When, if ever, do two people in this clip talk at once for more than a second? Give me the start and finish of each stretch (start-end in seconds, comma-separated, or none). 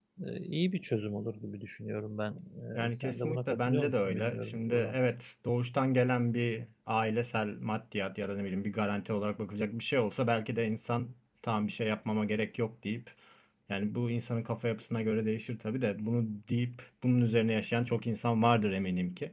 2.8-5.0